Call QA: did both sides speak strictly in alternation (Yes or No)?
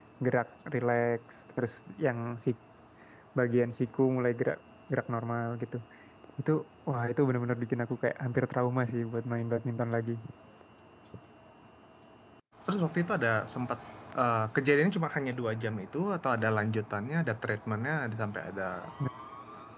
Yes